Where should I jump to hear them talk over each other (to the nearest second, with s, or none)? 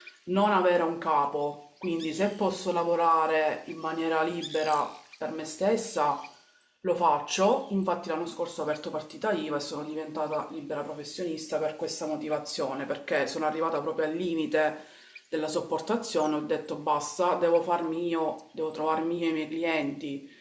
none